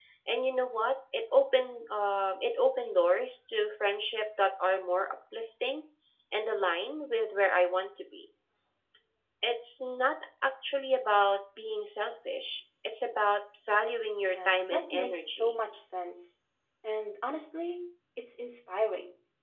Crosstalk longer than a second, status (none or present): present